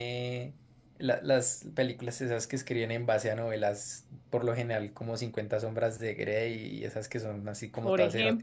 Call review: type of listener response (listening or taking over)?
taking over